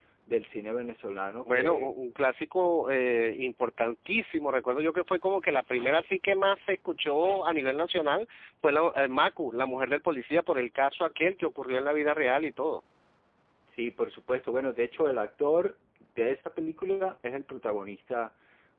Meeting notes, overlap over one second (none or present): none